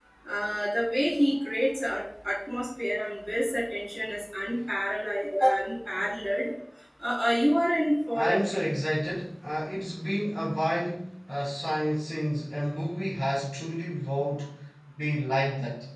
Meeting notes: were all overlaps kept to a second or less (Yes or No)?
Yes